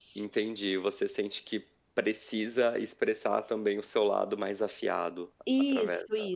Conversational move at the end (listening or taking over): taking over